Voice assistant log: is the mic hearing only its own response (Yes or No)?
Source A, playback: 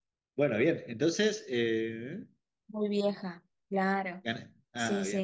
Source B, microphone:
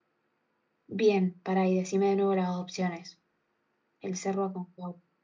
No